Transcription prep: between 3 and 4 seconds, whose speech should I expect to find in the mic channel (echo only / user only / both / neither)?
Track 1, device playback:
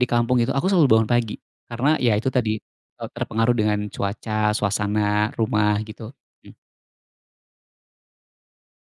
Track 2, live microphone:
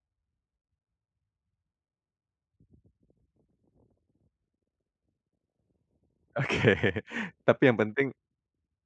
neither